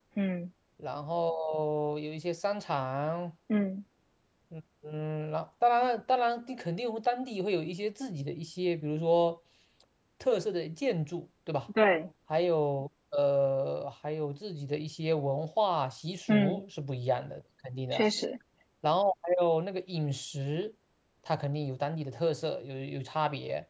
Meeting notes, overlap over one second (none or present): none